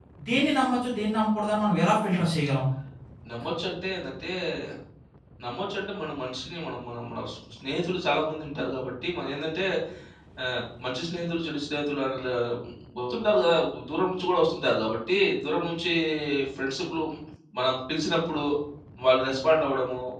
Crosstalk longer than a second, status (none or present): none